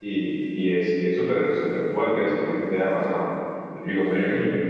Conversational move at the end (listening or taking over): taking over